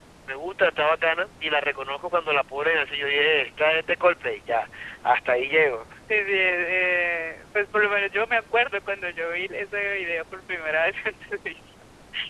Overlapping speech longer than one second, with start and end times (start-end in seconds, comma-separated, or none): none